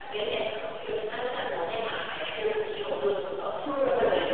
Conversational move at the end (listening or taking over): listening